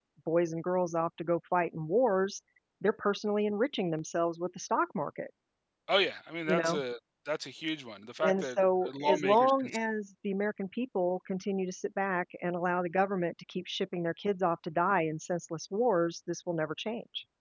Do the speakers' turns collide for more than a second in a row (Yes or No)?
Yes